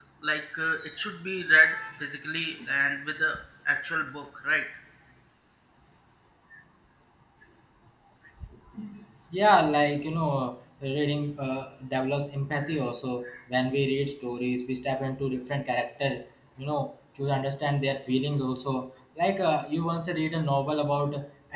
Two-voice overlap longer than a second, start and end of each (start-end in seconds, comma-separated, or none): none